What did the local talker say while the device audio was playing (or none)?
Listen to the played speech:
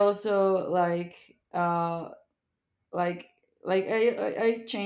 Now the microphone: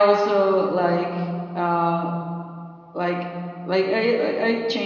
none